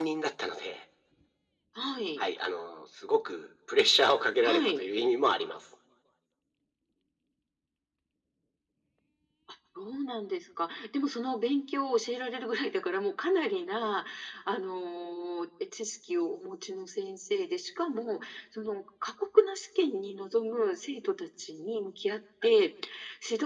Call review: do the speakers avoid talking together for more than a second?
Yes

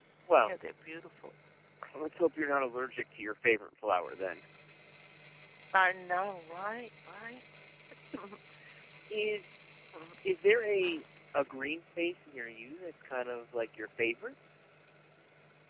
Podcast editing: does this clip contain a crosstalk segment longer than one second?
No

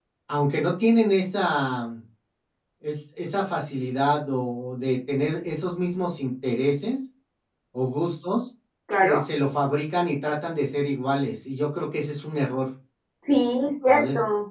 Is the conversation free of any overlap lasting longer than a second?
Yes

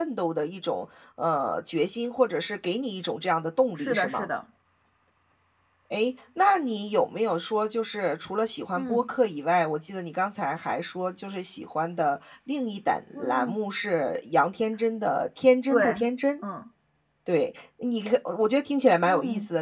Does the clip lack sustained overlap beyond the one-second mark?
Yes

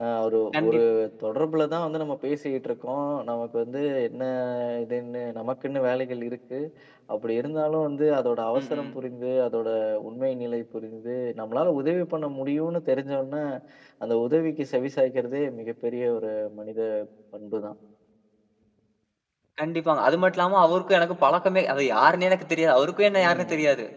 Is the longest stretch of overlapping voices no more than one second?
Yes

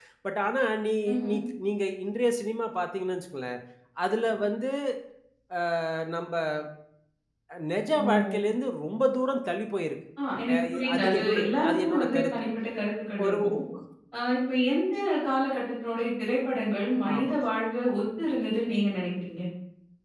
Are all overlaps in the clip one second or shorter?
No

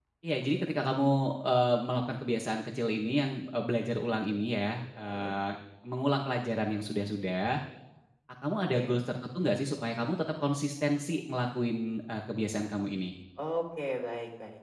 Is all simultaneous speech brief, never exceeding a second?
Yes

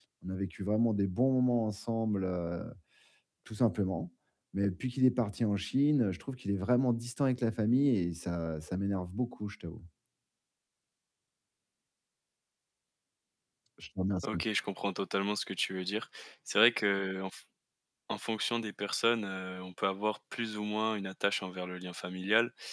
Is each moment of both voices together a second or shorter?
Yes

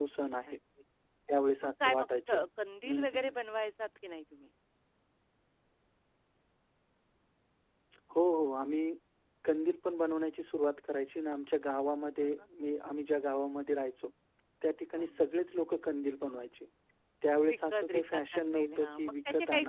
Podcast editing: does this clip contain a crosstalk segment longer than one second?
Yes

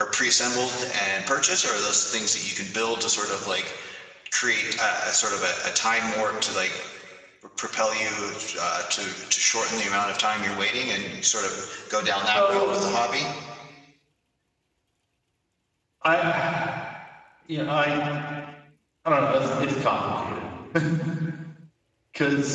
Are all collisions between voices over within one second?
Yes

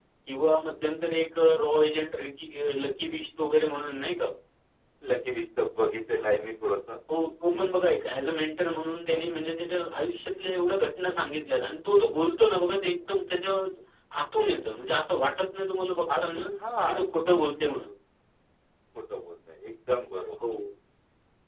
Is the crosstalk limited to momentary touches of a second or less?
Yes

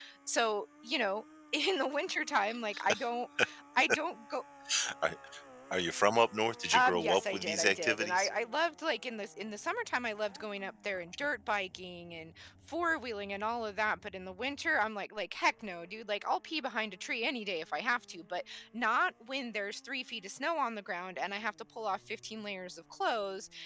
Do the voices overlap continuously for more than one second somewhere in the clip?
Yes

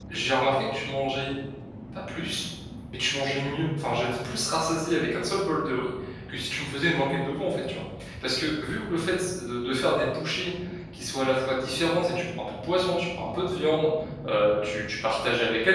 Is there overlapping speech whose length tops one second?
No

